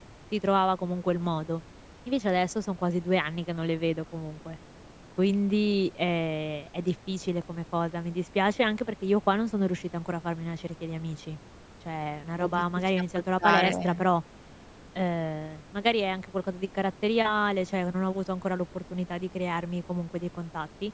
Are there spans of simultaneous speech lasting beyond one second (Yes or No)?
Yes